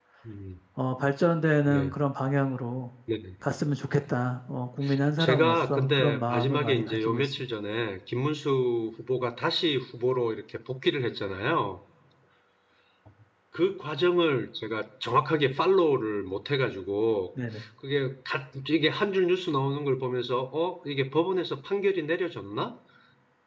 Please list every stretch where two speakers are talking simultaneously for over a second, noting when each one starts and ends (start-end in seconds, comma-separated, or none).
5.2-7.4